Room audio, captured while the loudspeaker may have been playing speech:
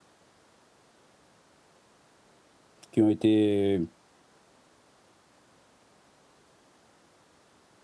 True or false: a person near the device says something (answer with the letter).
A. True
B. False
A